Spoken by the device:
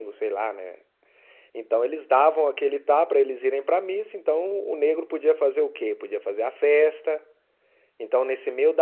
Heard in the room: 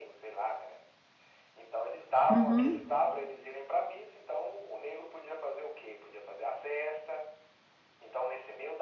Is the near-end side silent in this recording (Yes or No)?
No